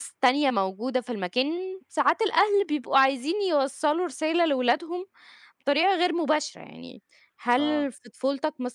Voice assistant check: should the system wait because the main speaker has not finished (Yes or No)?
Yes